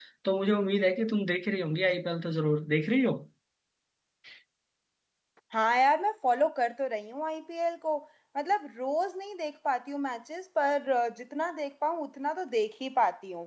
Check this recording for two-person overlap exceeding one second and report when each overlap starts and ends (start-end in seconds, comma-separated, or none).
none